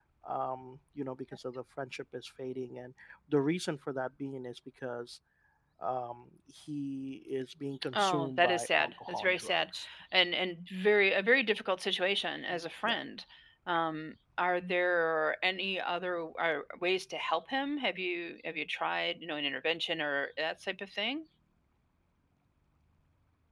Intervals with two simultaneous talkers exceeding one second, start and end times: 7.9-9.6

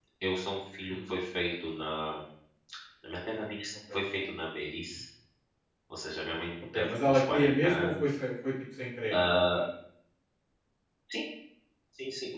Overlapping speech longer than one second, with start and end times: 6.7-8.1

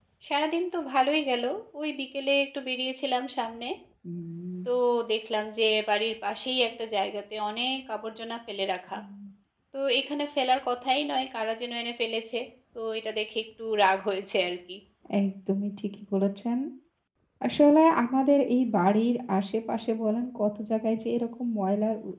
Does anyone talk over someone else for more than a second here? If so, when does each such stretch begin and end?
none

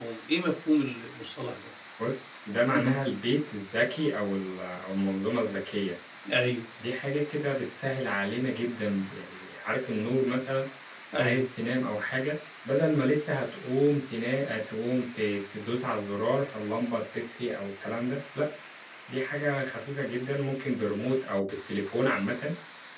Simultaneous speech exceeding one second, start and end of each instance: none

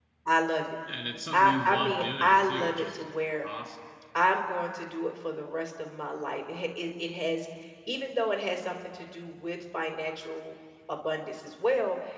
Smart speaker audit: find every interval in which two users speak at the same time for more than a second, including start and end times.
1.3-3.0

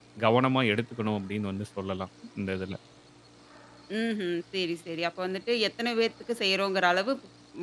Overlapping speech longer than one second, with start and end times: none

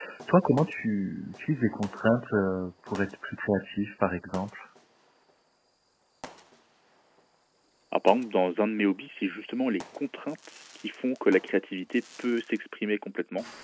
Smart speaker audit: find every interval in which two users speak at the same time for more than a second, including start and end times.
none

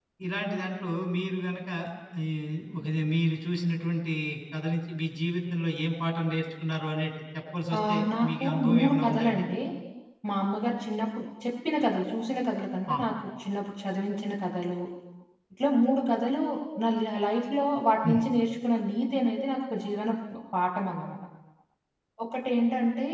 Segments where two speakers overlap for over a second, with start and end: 7.9-9.4

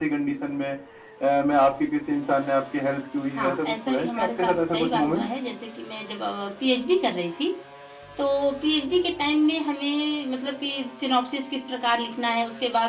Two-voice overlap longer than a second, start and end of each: 3.3-5.3

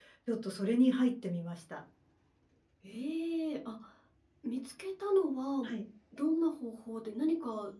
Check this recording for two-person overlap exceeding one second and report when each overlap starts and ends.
none

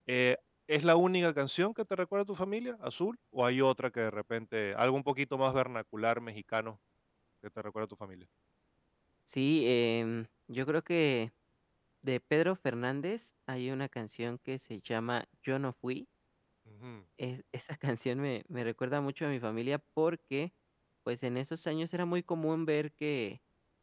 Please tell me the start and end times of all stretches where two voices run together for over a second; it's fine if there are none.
none

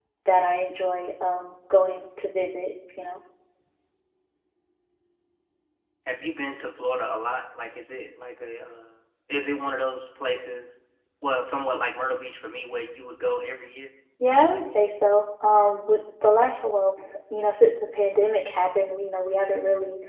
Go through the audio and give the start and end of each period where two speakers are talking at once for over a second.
none

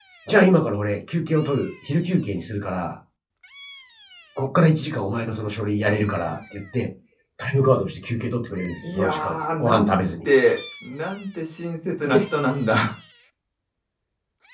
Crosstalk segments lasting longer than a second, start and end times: 8.8-10.3

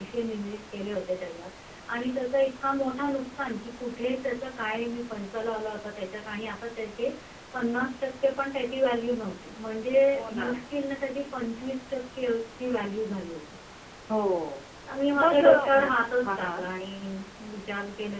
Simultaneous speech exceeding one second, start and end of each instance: 15.2-16.6

